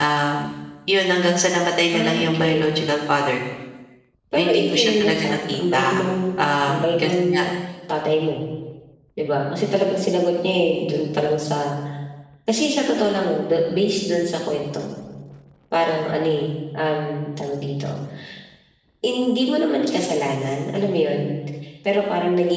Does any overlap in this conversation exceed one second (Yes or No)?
Yes